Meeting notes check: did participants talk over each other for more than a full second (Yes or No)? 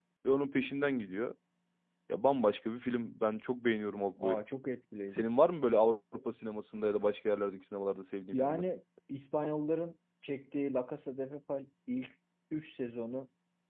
No